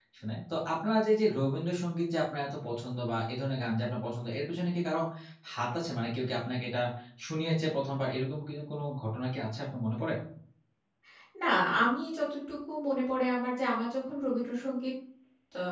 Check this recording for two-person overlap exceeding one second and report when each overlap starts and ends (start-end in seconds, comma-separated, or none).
none